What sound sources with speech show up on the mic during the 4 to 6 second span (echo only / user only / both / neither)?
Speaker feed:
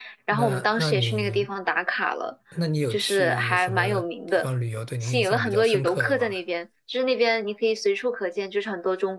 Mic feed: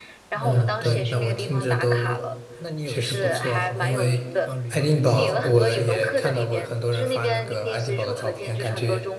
both